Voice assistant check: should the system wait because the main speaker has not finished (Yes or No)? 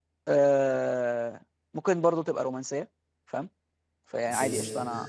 Yes